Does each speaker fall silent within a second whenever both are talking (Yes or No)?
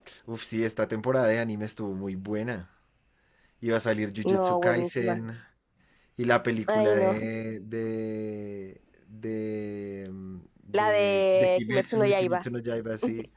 No